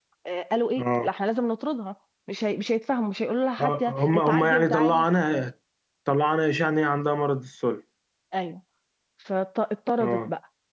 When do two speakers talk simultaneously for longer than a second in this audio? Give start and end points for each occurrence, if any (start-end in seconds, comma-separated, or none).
3.6-5.0